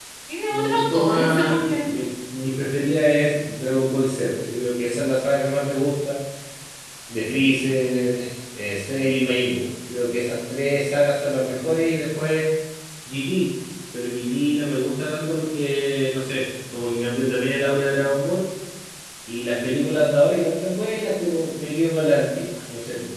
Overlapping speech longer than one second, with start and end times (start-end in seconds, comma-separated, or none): 0.5-1.8